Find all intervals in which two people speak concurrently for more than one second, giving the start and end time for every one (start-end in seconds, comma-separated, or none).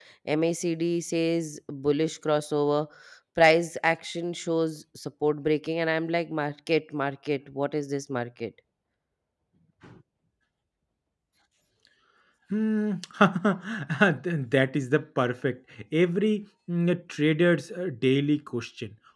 none